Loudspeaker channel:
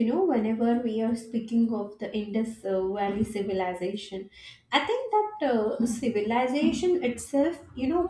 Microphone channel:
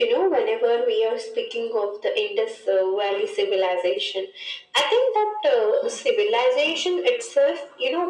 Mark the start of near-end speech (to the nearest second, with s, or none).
none